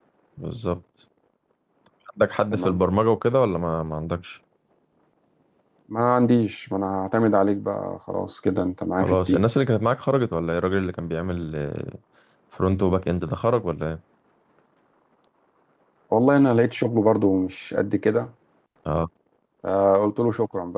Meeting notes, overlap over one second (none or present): none